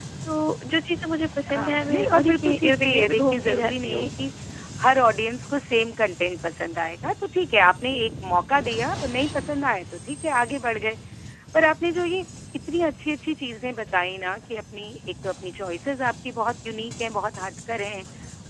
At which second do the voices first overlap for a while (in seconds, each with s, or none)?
1.5 s